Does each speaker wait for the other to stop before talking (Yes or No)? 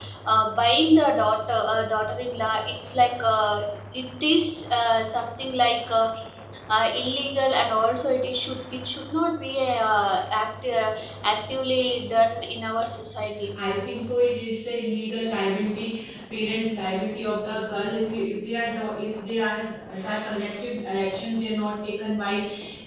Yes